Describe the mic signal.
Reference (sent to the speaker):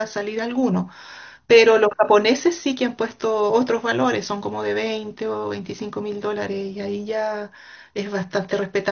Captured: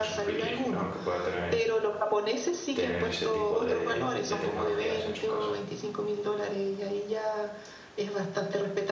both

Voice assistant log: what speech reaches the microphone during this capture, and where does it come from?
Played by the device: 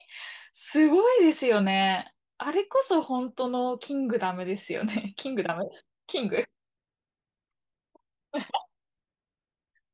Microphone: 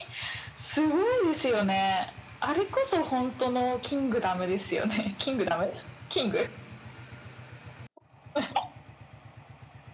echo only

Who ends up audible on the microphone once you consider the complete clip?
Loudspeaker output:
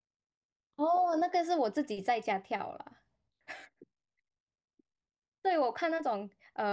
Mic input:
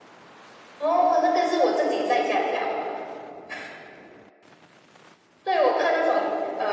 echo only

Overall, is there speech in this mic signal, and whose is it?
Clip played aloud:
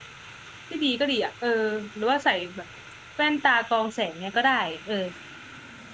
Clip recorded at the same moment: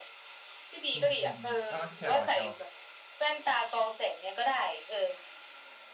both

